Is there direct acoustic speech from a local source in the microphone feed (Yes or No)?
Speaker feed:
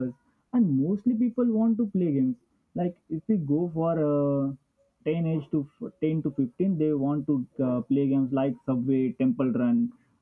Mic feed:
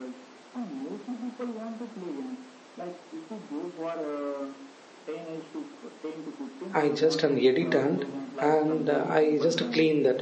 Yes